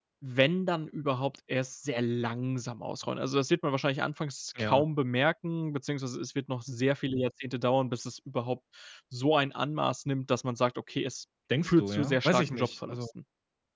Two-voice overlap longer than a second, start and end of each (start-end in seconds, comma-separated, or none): 11.6-13.1